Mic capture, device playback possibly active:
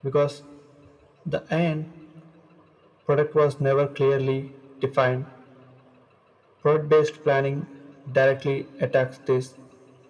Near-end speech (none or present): none